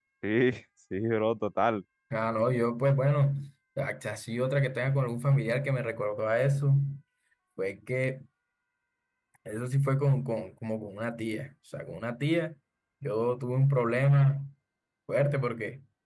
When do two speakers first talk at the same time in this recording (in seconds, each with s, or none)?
none